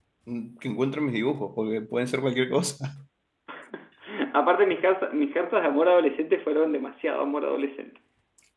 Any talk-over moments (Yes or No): No